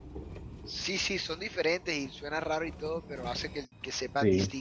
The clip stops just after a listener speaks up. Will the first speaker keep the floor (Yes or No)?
No